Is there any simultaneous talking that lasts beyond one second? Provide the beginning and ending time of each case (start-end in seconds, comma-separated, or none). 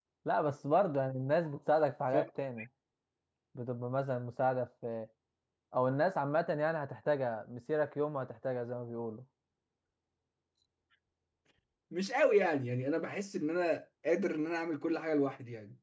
none